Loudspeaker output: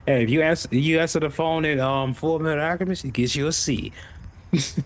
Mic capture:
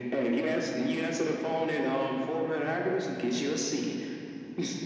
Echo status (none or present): present